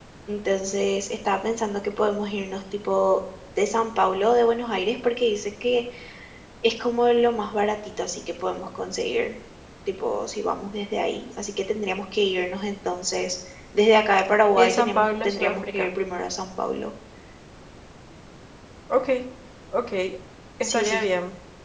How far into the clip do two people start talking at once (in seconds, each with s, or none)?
14.6 s